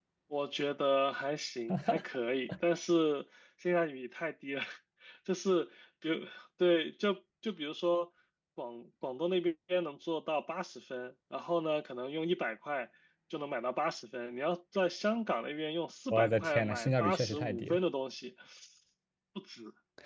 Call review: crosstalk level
present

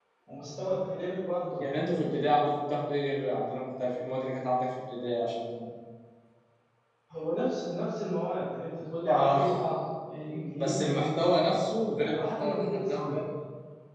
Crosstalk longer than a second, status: present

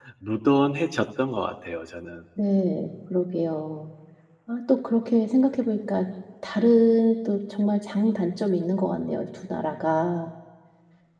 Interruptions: none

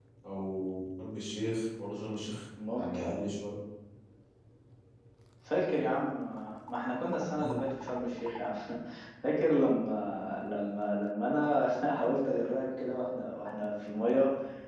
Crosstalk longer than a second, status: none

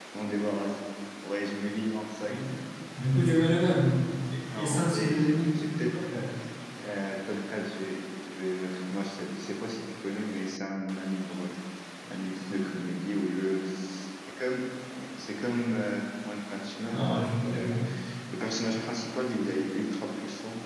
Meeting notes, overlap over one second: present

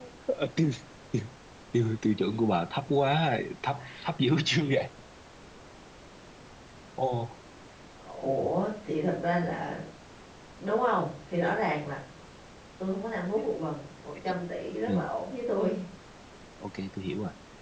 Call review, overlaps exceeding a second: none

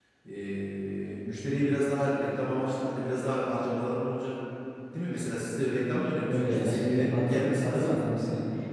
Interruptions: present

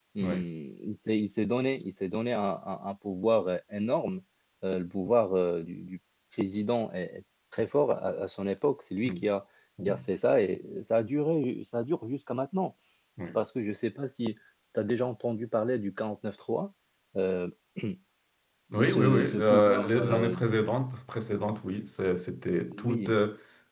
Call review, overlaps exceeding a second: present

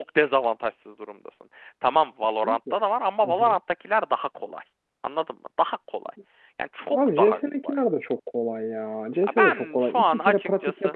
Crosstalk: present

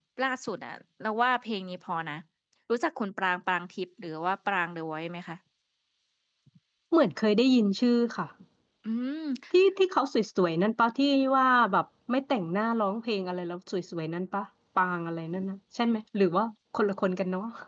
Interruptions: none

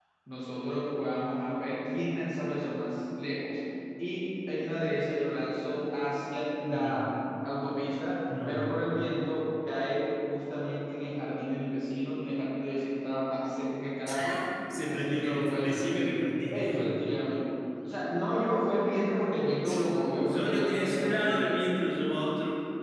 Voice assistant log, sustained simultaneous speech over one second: present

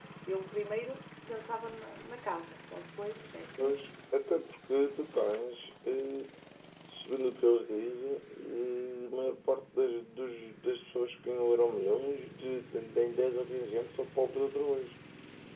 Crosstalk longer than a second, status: none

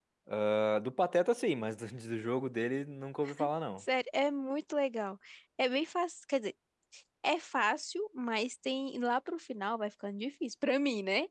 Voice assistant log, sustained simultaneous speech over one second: none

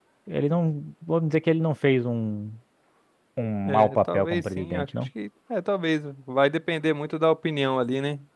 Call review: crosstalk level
present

